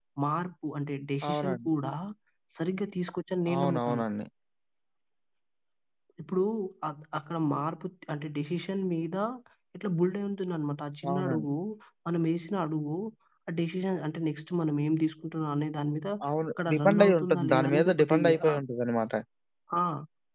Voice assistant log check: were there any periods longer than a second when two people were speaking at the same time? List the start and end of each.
16.7-18.6

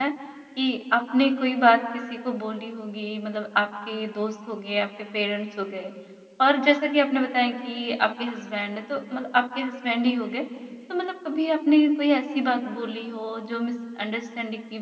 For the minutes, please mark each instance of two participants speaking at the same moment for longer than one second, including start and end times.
none

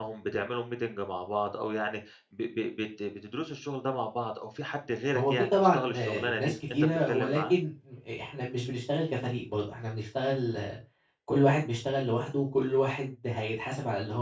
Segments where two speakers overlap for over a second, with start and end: 5.2-7.5

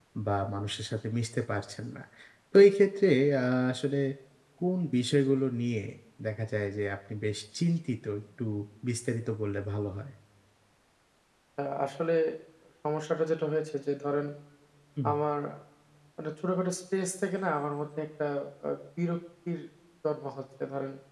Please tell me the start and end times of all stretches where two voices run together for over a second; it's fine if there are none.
none

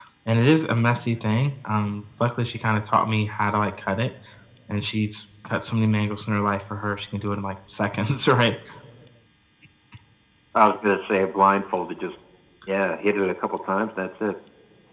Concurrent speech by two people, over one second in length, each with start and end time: none

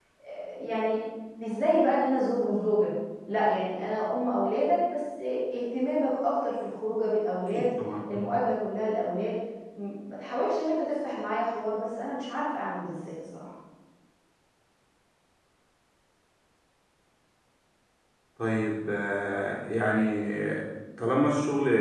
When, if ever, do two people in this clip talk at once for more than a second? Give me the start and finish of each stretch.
none

